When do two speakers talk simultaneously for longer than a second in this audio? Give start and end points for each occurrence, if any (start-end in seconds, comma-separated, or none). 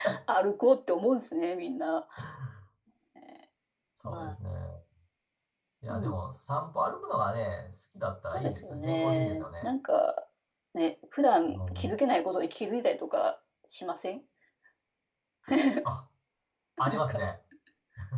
8.3-9.7